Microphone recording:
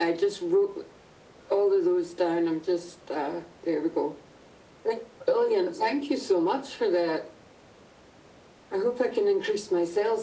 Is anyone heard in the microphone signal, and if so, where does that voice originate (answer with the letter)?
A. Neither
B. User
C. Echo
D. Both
C